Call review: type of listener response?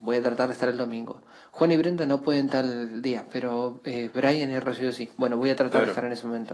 listening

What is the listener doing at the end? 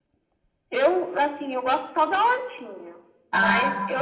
listening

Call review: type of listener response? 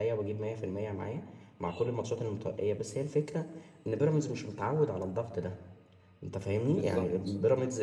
listening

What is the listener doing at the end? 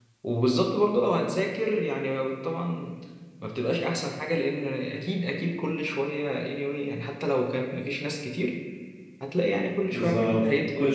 taking over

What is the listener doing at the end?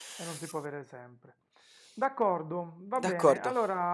listening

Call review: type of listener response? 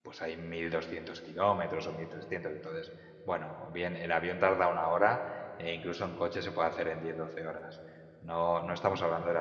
listening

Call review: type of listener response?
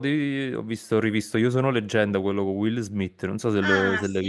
taking over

